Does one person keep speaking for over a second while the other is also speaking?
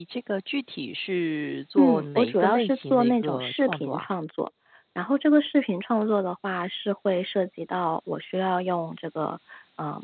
Yes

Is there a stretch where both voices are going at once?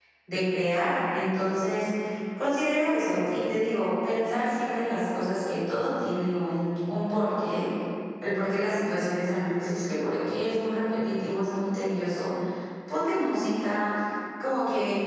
No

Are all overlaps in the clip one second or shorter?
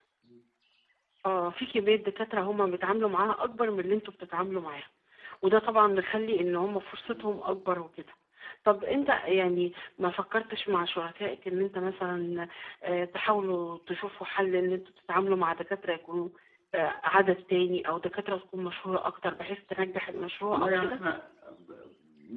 Yes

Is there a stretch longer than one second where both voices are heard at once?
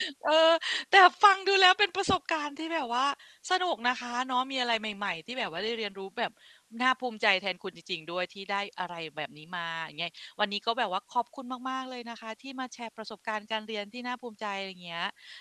No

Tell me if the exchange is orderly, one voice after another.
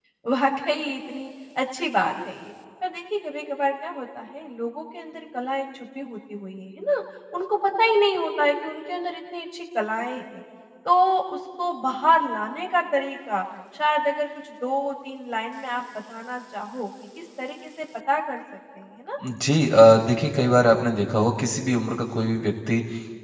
Yes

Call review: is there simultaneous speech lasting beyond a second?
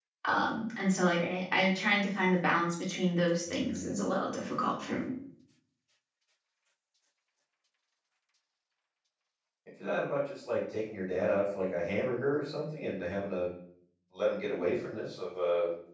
No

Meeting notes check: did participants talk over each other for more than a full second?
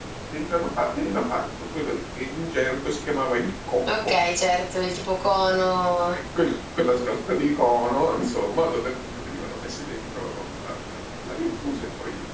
No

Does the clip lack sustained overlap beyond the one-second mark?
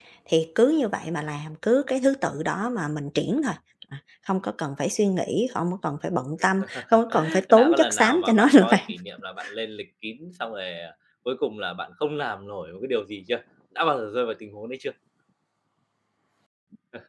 No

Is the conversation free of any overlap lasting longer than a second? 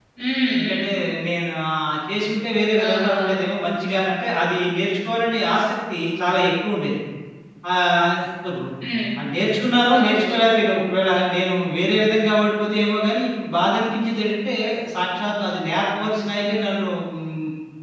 Yes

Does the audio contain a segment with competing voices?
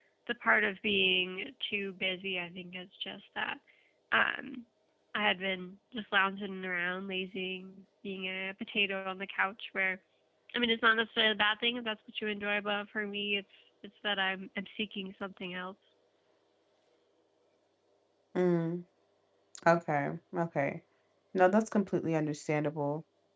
No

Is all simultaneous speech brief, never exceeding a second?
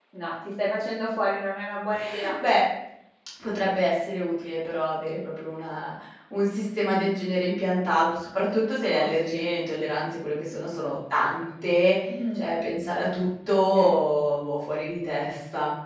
Yes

